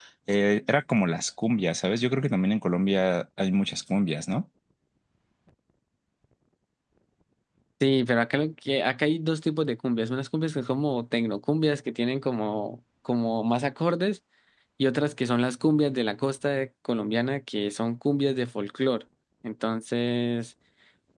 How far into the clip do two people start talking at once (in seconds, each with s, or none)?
none